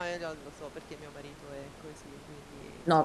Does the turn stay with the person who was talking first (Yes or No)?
No